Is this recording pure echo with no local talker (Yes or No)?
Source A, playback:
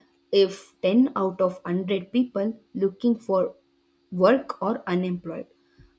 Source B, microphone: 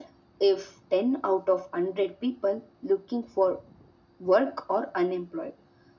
Yes